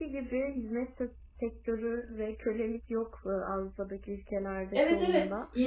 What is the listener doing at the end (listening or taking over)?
taking over